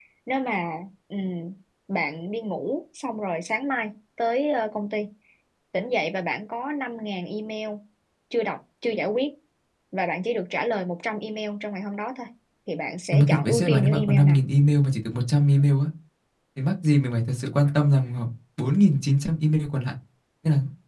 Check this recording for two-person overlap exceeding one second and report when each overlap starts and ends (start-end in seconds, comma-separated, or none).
13.1-14.4